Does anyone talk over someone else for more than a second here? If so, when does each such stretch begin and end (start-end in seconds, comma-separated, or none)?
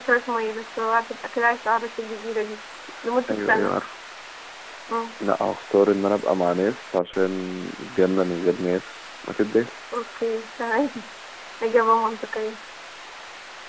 none